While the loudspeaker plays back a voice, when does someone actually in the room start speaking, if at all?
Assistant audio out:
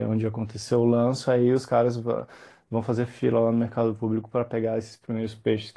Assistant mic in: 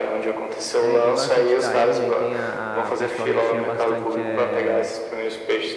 0.8 s

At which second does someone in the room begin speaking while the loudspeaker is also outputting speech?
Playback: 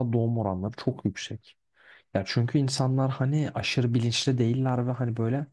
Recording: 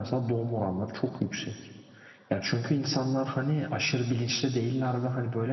none

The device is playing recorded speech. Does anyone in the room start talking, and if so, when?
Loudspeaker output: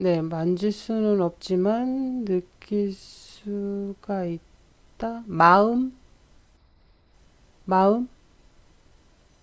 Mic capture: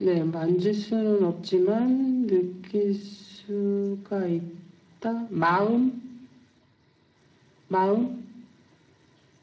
none

